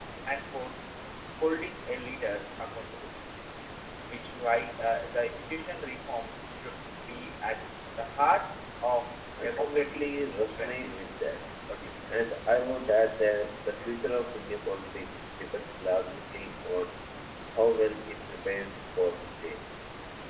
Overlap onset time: 9.4 s

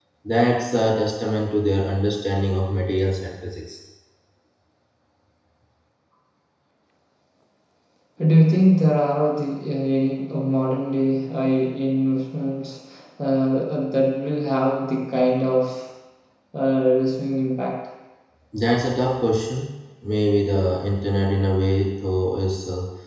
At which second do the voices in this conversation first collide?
none

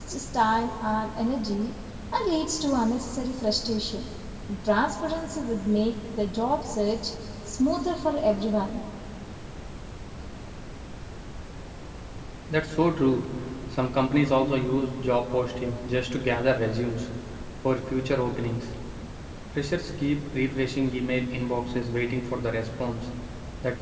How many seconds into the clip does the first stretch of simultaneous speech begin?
none

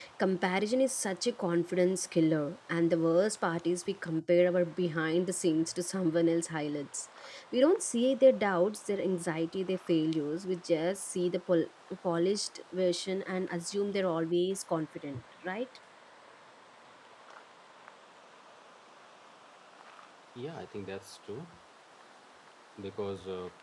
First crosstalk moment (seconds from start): none

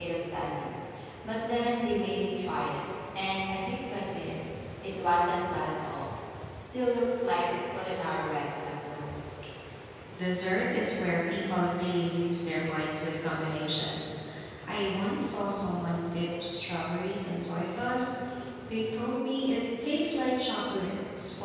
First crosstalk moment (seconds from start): none

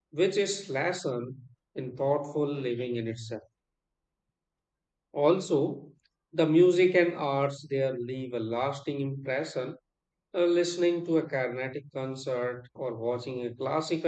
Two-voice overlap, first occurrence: none

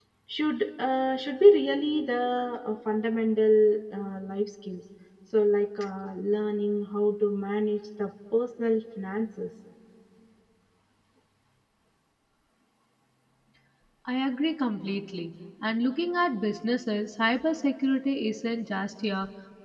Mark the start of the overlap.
none

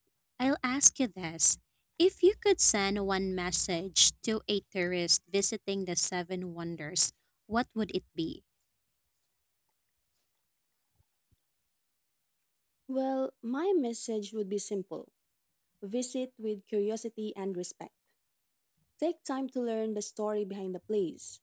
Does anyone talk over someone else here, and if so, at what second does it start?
none

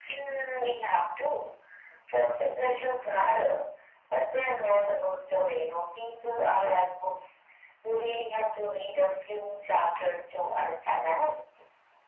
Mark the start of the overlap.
none

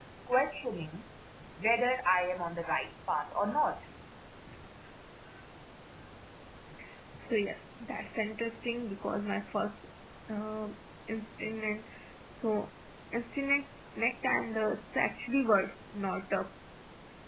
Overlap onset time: none

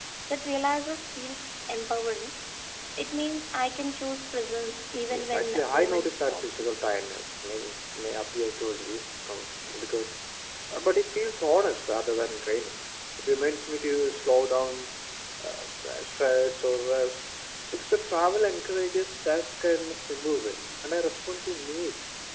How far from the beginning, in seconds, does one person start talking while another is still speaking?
5.1 s

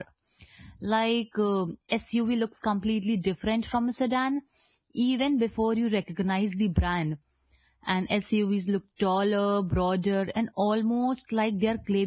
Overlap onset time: none

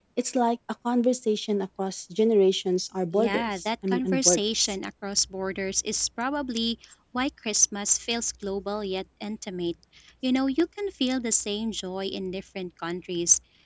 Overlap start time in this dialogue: 3.1 s

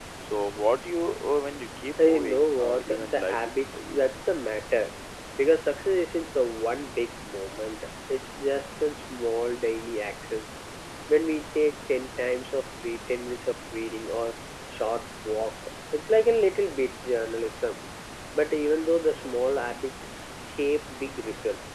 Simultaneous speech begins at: 2.0 s

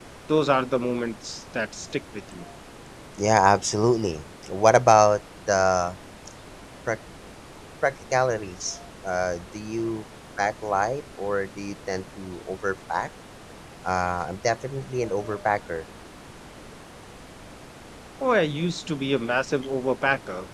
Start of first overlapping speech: none

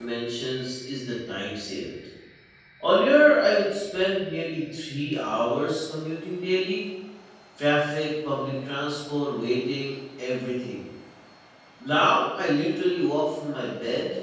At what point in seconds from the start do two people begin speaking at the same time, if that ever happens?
none

